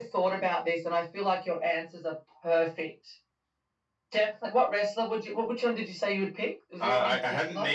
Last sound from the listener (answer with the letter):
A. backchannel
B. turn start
B